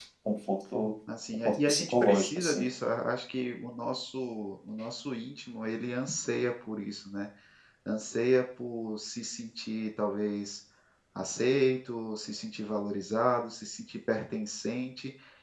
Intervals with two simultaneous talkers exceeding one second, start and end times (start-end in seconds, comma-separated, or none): 1.4-2.7